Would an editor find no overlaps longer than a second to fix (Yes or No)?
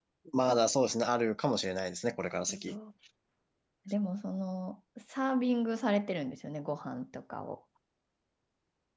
Yes